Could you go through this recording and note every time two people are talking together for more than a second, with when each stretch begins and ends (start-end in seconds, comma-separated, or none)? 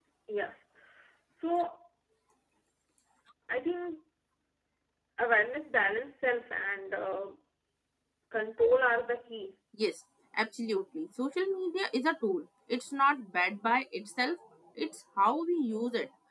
none